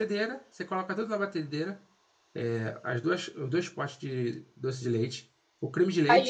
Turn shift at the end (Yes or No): Yes